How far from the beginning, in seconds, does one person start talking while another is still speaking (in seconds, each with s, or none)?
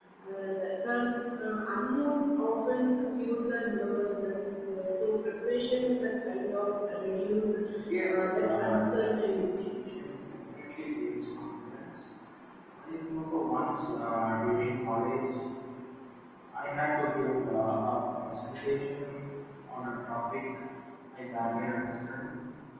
8.1 s